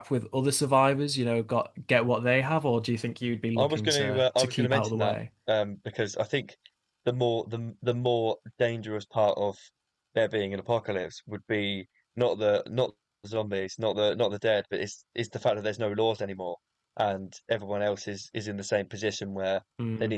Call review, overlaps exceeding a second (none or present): present